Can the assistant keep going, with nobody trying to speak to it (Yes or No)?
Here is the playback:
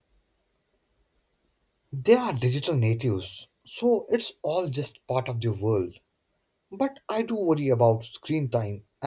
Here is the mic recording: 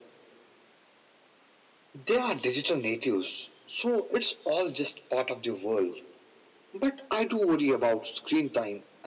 Yes